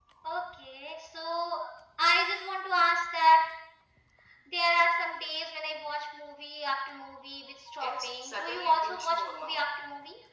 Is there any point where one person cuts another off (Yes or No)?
Yes